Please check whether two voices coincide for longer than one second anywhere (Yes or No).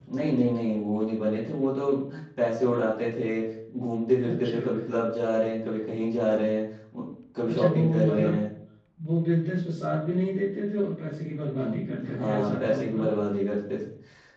Yes